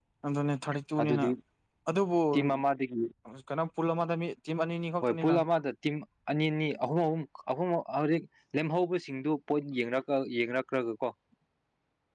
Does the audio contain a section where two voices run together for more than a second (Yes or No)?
No